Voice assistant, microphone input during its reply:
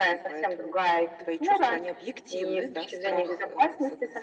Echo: present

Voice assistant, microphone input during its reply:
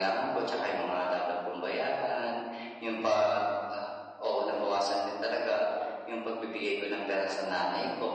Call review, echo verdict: present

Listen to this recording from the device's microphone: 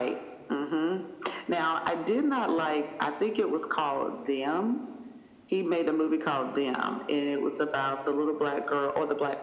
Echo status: present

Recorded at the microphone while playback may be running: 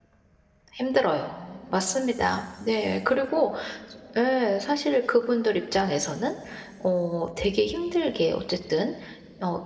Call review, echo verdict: none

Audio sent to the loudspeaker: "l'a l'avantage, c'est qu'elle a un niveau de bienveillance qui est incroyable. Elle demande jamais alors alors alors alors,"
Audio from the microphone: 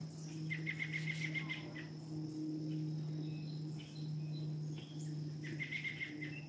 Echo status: none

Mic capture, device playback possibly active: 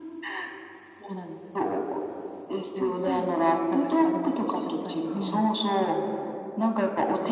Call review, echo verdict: present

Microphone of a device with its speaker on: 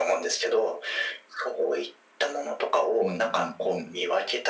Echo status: present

